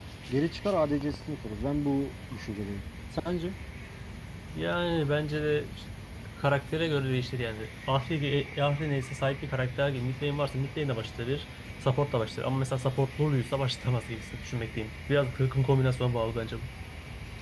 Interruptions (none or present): none